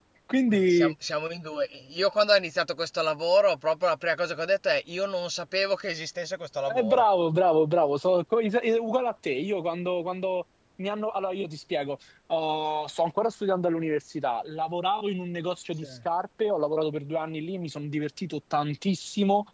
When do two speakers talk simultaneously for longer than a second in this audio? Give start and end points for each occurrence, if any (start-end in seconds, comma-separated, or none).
none